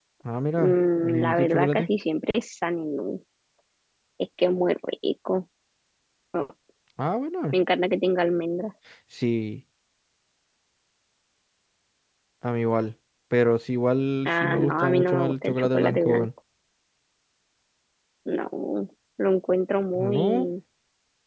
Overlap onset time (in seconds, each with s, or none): 0.6 s